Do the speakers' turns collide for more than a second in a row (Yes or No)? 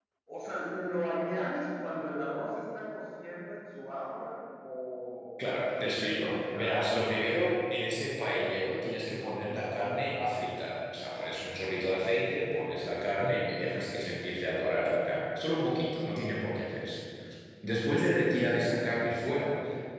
Yes